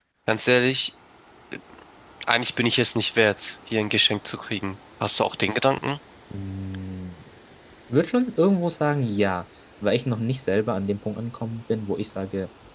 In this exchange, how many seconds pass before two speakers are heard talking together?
none

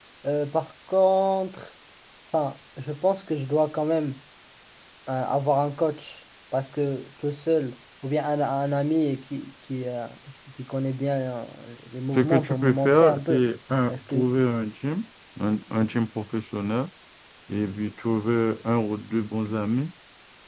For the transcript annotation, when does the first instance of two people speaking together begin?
12.1 s

